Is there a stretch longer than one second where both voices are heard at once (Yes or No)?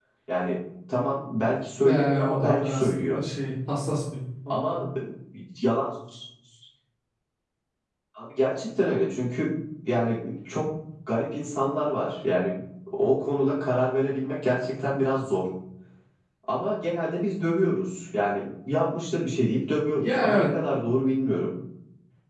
Yes